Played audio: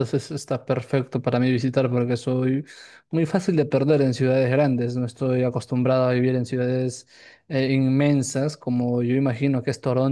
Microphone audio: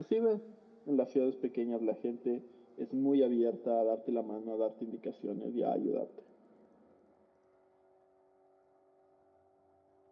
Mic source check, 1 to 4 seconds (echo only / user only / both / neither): user only